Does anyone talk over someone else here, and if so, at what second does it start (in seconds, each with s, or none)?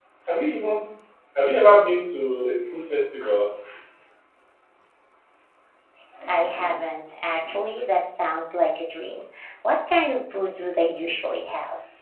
none